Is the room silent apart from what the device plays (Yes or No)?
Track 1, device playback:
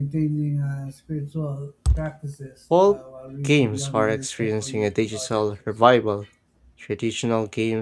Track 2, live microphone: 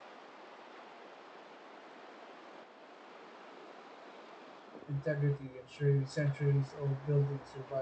No